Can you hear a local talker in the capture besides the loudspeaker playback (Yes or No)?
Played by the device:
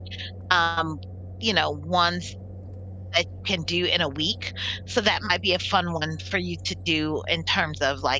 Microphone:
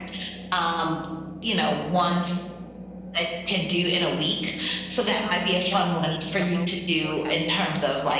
Yes